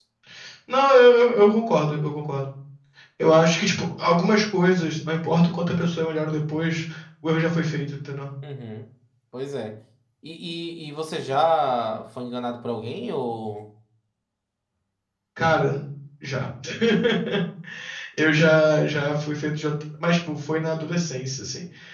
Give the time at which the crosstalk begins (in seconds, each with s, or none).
none